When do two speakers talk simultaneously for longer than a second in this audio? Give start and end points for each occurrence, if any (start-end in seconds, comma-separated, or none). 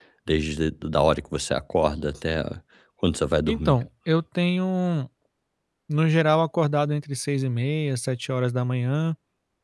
none